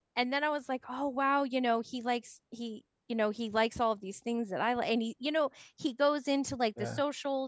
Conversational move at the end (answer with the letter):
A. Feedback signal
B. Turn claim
A